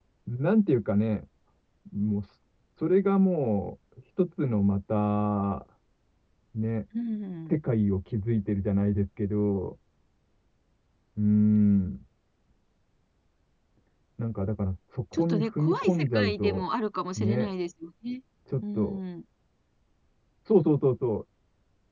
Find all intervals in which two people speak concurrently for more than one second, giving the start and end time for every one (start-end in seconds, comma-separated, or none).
15.1-16.6